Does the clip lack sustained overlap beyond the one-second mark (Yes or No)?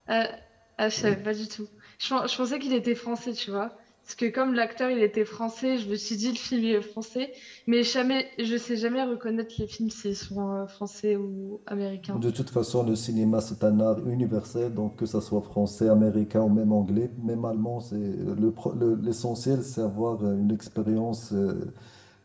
Yes